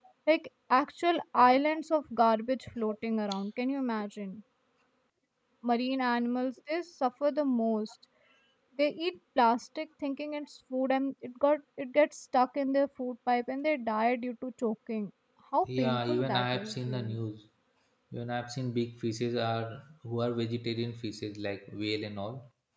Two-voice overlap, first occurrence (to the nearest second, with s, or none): 16 s